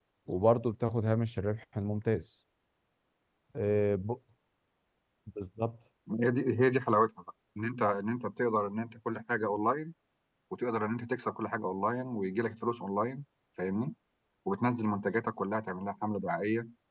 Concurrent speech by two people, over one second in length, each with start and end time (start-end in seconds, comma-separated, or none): none